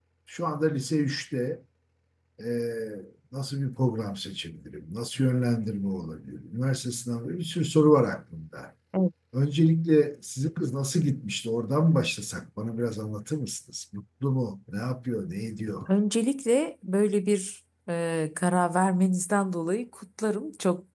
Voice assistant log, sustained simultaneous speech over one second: none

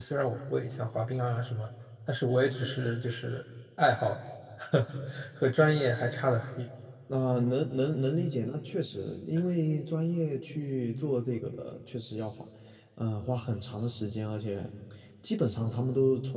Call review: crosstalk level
none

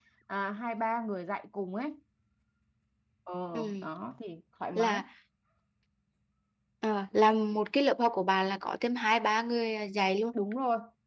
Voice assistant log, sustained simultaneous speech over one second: none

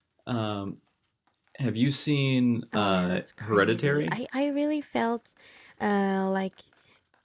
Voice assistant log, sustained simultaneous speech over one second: present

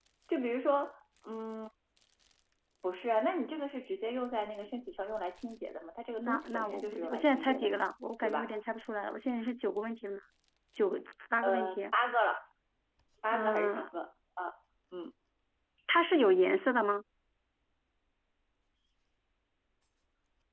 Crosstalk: present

